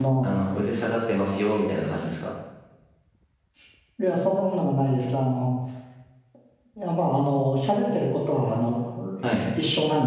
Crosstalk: none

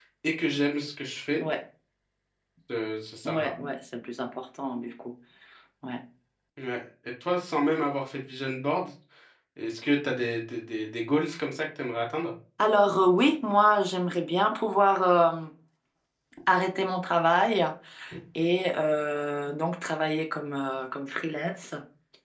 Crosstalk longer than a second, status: none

